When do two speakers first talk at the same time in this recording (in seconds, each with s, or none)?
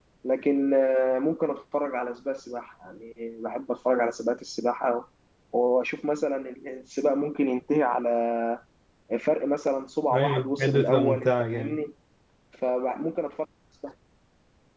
10.1 s